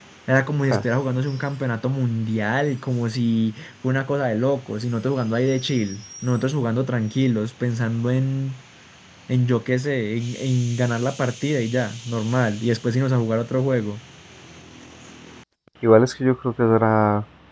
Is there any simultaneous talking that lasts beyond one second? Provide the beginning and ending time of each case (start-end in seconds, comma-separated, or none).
none